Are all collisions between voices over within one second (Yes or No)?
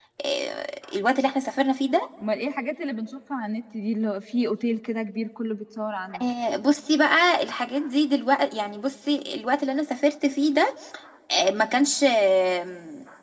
Yes